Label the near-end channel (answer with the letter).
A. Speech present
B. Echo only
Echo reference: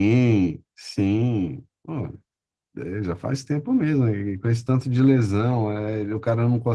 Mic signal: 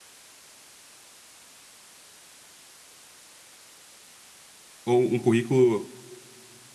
A